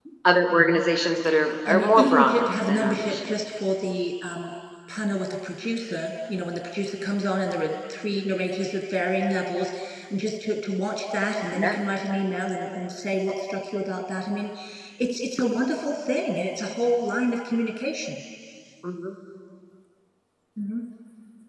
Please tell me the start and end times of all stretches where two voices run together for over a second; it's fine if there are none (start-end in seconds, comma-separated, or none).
1.6-3.3